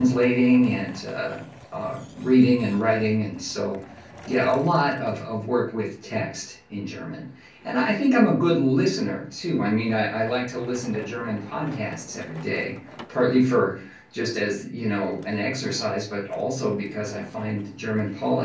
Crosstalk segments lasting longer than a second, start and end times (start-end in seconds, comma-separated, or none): none